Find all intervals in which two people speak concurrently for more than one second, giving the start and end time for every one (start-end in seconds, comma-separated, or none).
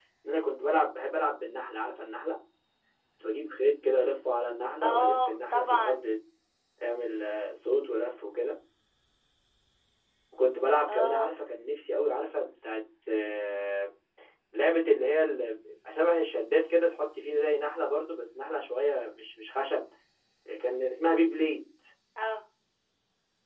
4.8-6.1